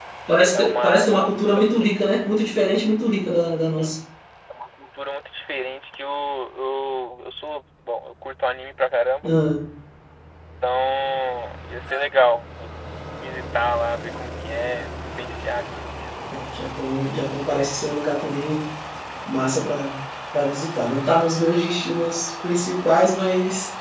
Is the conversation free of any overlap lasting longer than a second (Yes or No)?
No